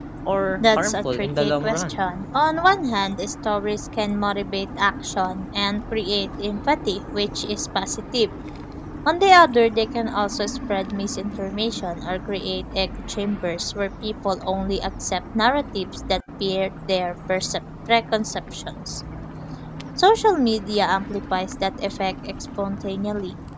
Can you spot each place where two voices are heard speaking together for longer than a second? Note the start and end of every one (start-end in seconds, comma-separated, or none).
0.6-2.1